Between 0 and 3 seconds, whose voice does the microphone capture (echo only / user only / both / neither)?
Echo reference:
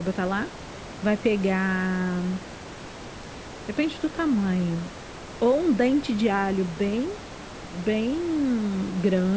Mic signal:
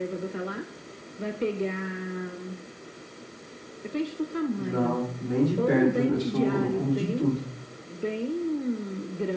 echo only